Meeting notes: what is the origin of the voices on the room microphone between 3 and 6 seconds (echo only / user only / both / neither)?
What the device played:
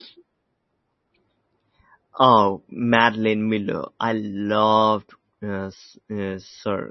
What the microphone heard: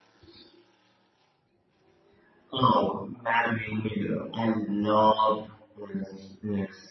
echo only